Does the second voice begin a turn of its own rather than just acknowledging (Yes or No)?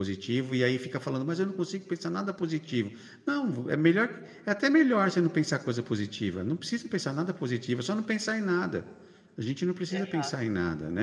No